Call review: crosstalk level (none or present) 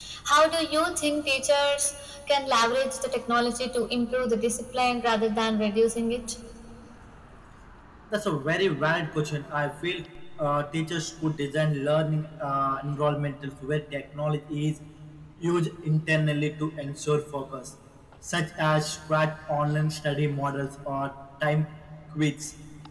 none